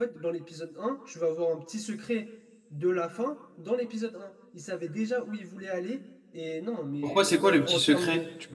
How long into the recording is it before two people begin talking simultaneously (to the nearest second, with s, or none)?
7 s